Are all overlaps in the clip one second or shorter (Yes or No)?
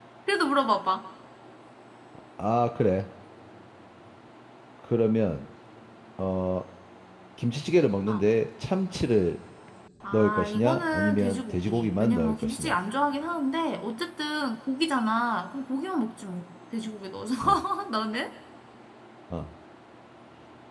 No